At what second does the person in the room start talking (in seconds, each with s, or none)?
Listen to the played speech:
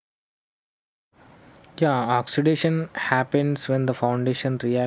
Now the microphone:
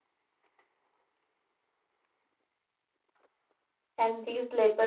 3.9 s